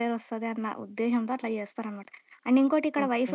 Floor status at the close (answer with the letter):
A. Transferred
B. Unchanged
B